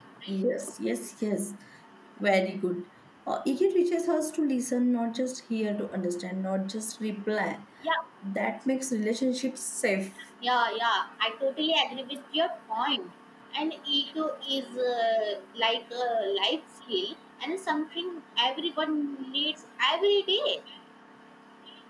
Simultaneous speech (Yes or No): No